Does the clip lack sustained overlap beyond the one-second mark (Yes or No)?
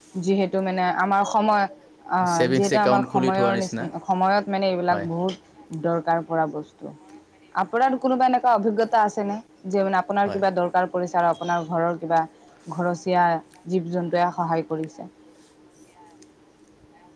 No